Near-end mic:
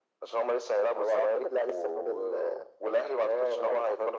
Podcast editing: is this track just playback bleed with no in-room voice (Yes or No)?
Yes